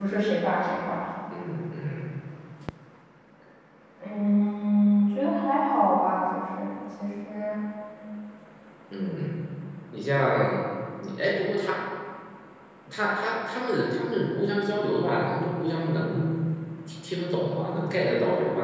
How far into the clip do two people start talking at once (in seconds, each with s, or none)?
none